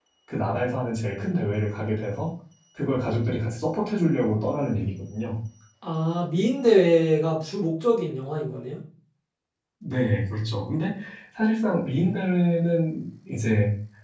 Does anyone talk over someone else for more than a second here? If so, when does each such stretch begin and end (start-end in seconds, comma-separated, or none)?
none